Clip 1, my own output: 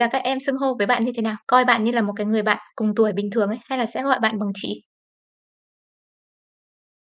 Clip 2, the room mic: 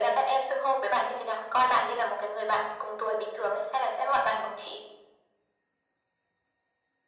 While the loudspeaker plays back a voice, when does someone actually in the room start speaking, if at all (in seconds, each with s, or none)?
none